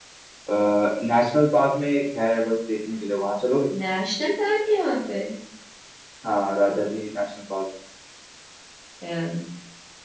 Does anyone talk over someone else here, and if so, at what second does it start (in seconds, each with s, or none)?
none